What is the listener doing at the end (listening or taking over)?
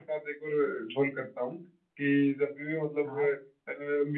listening